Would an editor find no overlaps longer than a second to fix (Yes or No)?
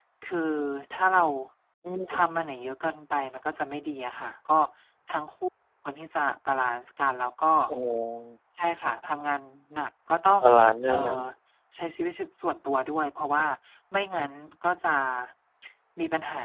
Yes